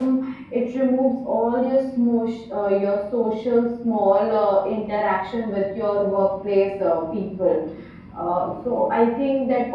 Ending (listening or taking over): listening